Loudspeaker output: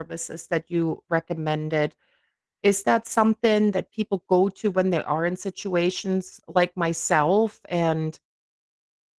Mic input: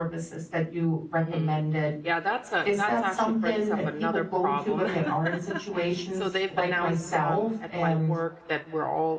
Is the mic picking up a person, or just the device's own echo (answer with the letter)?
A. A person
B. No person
A